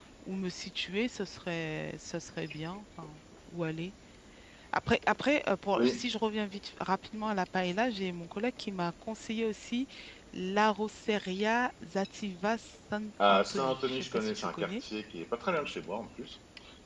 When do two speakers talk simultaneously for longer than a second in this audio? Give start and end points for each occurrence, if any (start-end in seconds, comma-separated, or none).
13.3-14.7